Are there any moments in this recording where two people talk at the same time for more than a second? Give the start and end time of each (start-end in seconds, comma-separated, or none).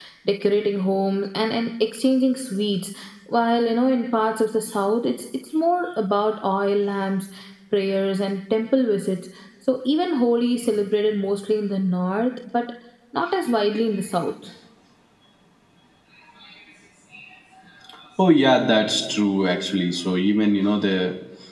none